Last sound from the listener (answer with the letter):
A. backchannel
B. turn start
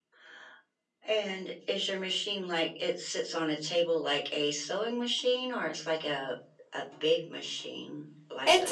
B